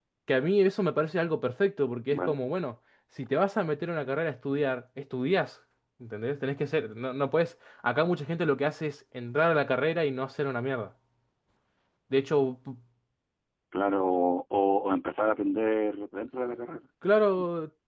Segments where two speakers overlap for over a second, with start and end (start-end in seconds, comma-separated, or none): none